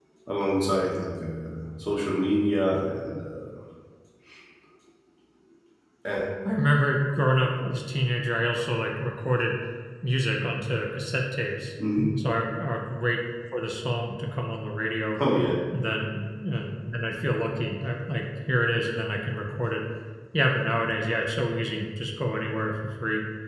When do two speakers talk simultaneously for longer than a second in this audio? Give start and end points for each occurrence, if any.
none

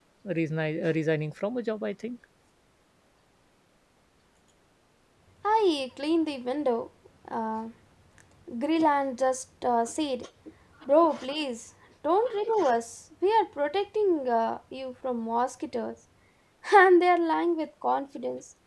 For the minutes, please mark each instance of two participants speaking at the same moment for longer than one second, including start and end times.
none

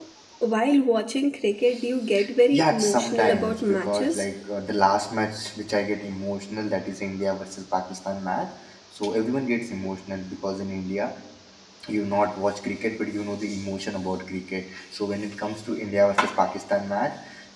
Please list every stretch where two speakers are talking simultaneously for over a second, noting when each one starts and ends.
2.5-4.2

